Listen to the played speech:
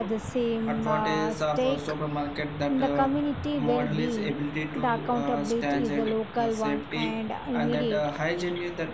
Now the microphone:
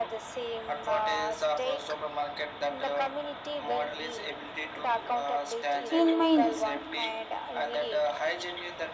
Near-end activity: present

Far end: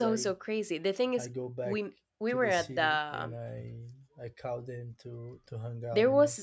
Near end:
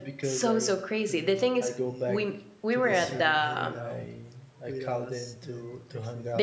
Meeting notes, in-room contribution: present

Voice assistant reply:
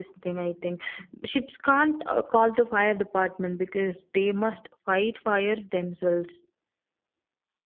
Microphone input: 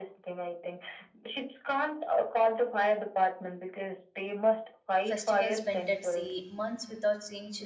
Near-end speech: present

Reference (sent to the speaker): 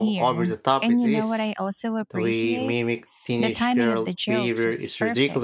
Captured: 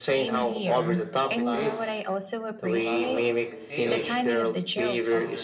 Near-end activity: present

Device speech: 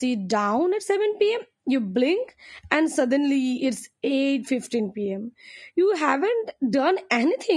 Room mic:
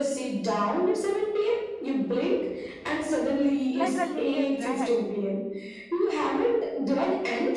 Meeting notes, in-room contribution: present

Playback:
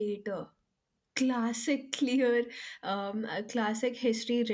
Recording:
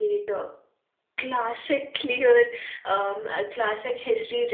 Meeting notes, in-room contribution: none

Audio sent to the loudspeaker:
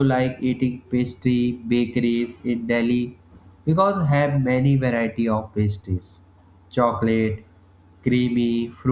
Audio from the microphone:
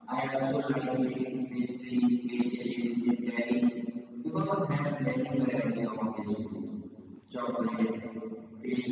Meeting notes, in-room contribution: none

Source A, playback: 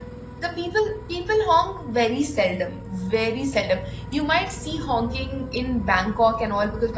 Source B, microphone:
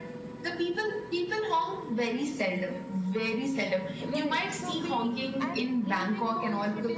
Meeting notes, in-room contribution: present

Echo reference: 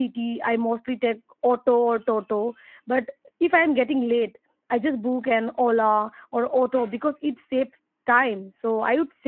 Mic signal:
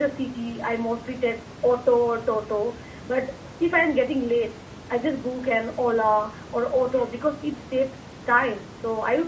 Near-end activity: none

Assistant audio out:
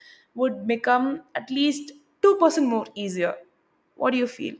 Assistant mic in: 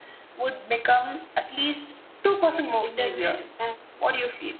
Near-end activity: present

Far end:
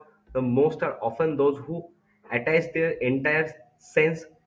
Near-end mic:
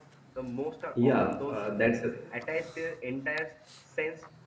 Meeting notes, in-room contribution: present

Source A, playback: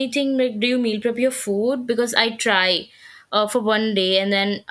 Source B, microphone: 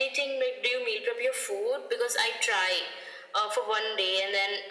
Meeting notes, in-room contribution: none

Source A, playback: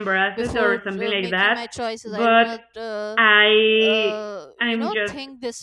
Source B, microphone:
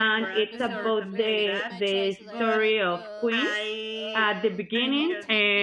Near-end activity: present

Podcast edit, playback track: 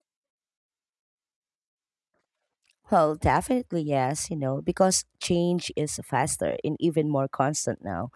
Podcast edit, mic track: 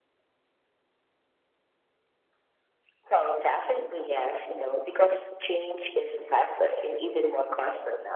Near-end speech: none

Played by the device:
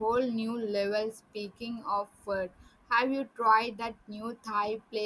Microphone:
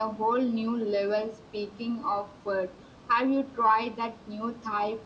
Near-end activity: none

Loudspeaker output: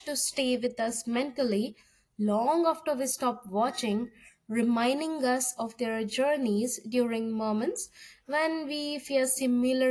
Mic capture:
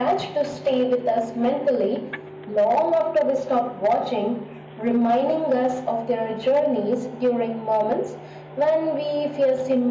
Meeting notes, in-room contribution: none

